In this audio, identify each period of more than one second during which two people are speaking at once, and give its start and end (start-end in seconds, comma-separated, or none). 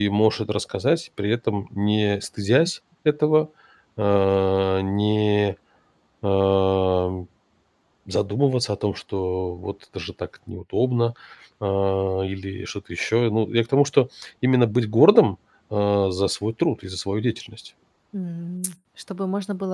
none